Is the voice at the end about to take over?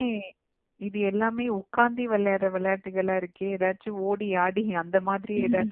No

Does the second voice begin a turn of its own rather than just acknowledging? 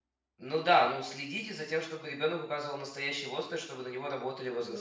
Yes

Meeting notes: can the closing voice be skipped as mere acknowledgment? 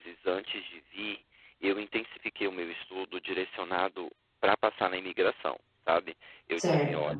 Yes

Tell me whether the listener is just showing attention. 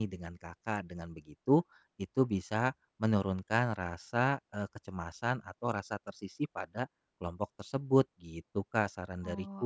No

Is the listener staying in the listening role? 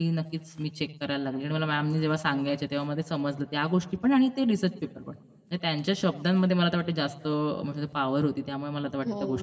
No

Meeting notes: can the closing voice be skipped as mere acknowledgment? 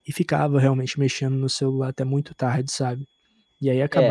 No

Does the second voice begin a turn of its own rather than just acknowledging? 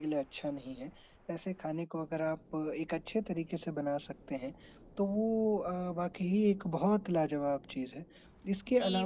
Yes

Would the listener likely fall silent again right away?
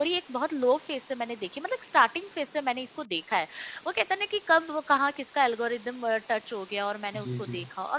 Yes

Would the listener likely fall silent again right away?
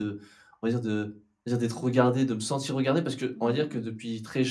Yes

